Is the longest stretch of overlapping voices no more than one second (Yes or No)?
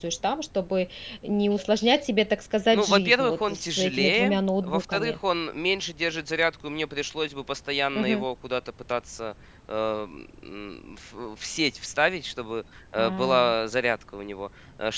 No